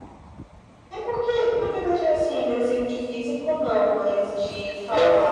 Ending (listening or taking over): taking over